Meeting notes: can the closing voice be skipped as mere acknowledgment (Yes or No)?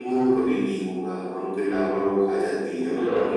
No